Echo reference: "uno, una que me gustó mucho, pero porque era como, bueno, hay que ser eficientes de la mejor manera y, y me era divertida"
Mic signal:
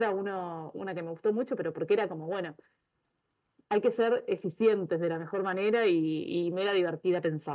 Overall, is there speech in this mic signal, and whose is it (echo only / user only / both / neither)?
echo only